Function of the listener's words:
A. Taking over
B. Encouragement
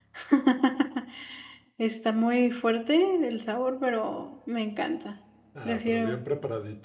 A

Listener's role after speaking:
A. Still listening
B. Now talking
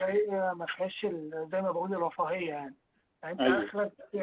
A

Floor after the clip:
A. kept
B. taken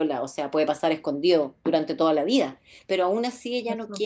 A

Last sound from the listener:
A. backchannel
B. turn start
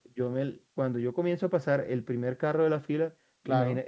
A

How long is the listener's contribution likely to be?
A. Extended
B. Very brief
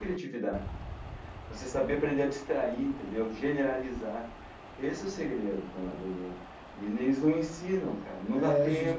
A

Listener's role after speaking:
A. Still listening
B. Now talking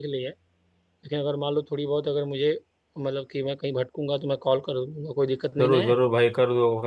B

